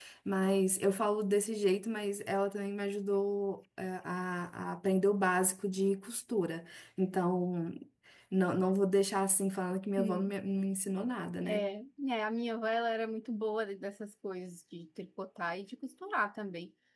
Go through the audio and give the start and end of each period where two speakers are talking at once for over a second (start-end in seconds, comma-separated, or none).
none